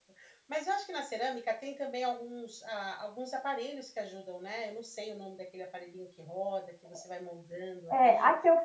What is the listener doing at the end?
taking over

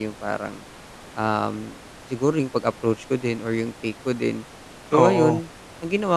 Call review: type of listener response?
listening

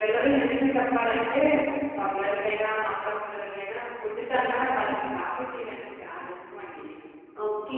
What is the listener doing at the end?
taking over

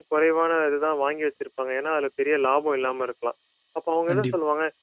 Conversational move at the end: listening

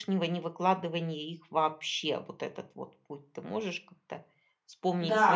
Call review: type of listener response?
taking over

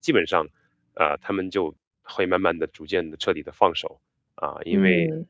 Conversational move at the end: listening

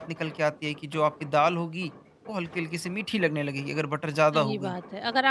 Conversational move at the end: taking over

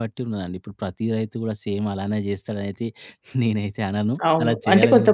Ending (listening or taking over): taking over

